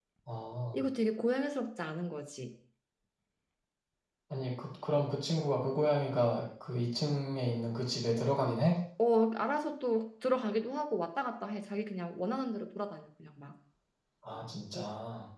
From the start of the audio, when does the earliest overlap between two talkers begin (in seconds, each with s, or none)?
none